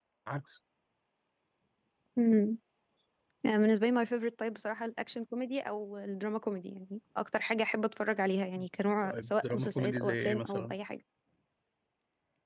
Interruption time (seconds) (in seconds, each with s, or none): 9.0 s